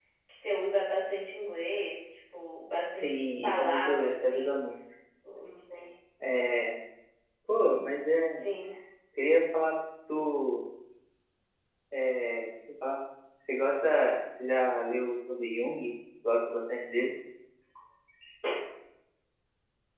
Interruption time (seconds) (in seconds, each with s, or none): 3.0 s